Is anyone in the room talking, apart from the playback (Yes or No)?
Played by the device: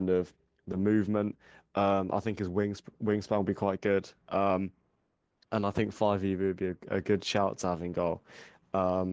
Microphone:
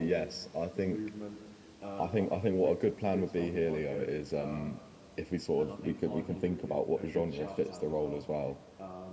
Yes